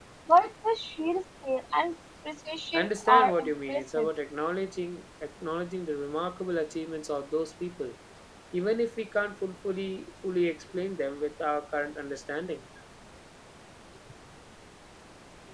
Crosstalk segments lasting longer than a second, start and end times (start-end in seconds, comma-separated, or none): 2.7-4.1